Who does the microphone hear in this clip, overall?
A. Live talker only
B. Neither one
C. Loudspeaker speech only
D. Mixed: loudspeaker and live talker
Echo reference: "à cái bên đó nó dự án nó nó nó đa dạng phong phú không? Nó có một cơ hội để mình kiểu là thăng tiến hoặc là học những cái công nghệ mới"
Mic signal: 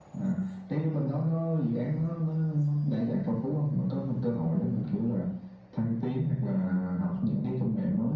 C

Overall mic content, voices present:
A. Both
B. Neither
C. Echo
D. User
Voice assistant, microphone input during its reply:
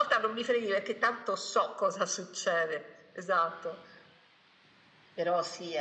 C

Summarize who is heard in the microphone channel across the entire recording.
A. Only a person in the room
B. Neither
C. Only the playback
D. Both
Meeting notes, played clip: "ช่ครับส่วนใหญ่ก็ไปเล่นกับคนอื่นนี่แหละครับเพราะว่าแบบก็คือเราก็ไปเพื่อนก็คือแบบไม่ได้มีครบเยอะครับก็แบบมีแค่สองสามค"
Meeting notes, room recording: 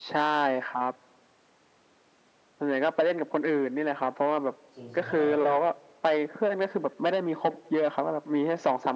D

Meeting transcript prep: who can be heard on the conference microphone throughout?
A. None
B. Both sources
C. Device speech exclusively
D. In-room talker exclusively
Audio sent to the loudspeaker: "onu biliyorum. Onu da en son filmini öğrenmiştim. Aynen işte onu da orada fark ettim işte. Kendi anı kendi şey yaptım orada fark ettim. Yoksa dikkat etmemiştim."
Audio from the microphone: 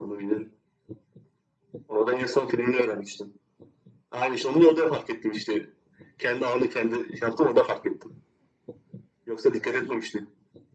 C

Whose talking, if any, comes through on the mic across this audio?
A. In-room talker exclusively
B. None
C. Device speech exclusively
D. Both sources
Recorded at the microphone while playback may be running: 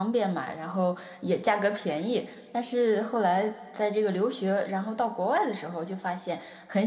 A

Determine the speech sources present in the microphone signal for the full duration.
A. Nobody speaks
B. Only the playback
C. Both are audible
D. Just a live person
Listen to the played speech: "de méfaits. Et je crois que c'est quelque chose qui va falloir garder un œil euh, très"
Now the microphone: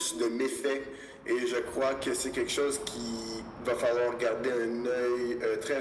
B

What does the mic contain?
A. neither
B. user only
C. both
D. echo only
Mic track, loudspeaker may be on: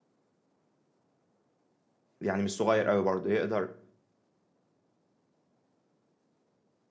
B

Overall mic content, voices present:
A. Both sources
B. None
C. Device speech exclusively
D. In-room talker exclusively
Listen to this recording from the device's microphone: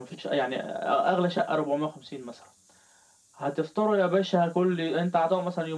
C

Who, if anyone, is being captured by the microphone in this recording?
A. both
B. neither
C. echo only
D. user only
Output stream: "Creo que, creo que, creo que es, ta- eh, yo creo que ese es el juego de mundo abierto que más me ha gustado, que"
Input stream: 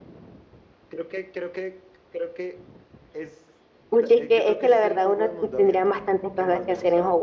A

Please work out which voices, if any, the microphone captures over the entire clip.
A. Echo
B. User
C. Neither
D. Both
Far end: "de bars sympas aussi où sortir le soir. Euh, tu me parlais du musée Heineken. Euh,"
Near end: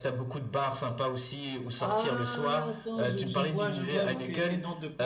D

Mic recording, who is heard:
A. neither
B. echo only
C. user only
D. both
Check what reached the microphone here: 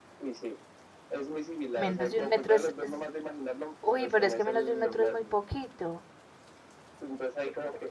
D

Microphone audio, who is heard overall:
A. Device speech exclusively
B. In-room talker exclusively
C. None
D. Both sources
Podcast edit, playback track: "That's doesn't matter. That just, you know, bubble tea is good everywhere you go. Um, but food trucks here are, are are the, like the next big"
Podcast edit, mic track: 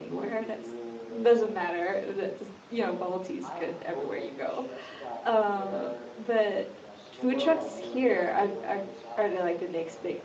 D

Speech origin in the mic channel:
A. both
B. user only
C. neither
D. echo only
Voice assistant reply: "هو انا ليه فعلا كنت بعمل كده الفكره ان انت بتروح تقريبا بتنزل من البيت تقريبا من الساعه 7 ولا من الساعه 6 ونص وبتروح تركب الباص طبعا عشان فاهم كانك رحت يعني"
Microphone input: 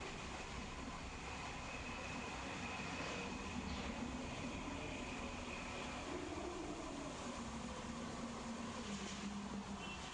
C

